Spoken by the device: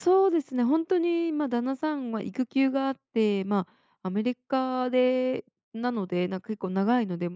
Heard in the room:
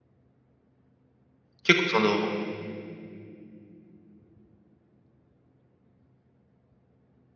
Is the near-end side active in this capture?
Yes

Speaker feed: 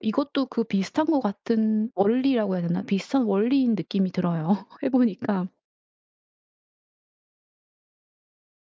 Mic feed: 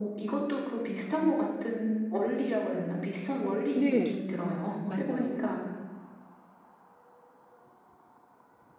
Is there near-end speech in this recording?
Yes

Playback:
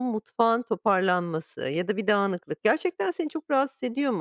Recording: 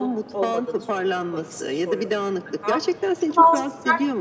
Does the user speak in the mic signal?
Yes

